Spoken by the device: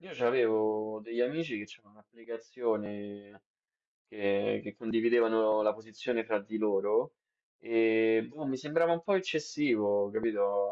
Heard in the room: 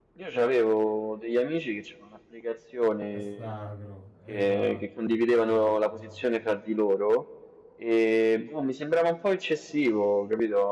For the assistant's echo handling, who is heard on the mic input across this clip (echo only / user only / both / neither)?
both